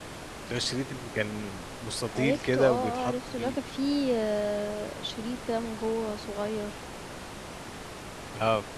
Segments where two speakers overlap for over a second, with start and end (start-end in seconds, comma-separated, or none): 2.1-3.6